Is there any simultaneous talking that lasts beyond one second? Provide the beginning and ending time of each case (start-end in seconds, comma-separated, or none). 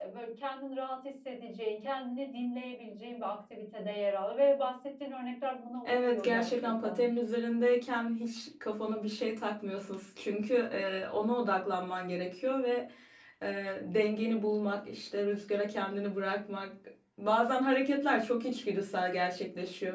5.8-7.1